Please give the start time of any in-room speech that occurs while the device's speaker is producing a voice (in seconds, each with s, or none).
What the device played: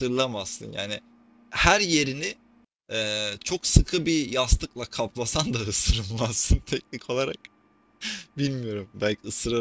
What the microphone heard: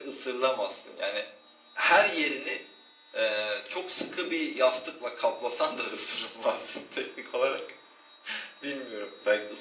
none